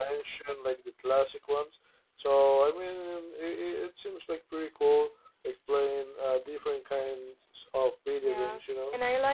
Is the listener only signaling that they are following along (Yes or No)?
No